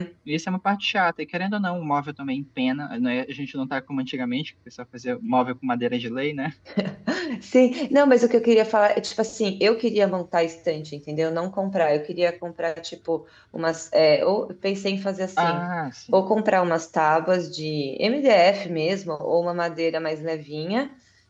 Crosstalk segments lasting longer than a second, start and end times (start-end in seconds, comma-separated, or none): none